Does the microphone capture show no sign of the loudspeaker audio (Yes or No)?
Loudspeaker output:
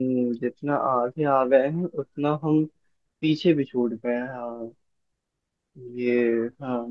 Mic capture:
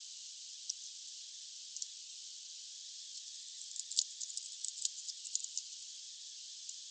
Yes